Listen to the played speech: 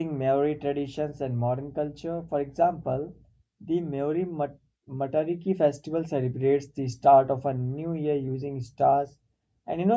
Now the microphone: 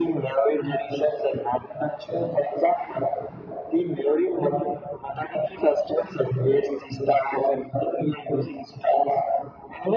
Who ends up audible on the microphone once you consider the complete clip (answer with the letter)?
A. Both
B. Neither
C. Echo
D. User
C